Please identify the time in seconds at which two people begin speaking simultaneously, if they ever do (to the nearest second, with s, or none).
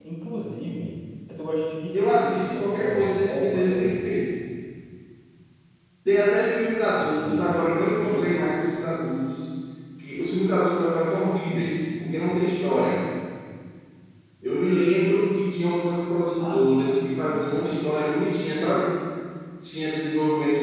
2 s